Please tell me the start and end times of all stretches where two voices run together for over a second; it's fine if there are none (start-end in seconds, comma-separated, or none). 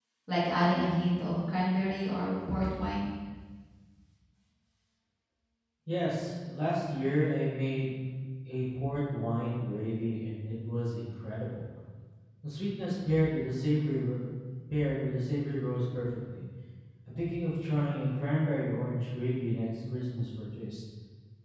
none